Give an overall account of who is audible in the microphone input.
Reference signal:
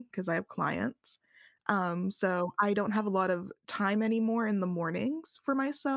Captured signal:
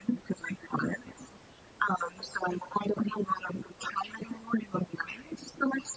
echo only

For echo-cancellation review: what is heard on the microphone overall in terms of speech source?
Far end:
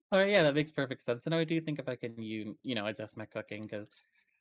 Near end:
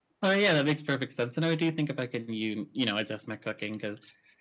echo only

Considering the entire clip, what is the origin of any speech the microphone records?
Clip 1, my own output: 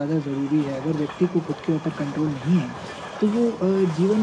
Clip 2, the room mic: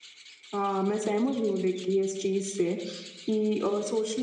user only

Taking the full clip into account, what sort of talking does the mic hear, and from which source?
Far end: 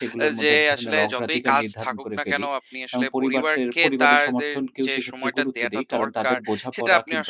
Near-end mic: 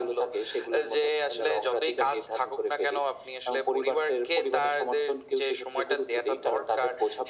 echo only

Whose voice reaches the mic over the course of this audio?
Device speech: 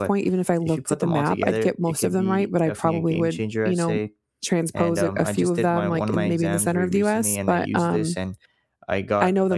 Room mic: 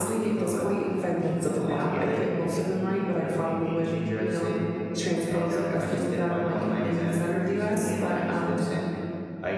echo only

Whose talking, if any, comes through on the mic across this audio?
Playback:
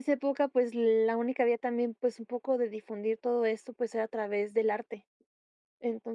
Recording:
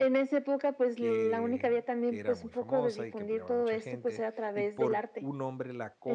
both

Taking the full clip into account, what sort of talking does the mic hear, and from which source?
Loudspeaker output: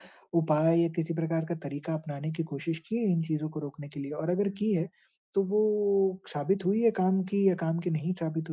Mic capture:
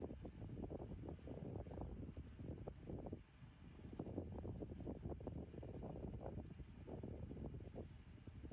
neither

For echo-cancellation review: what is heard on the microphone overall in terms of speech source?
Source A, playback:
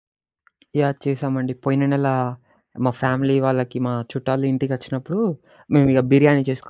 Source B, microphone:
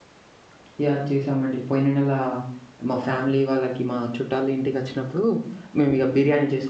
echo only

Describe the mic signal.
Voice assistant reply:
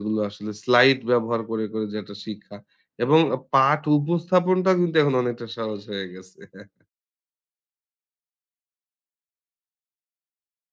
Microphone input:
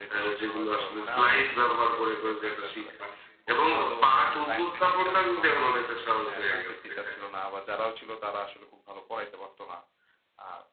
both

